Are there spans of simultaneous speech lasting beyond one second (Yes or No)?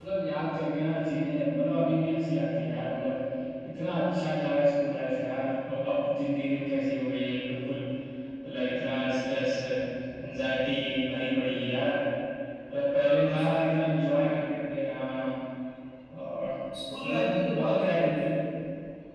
Yes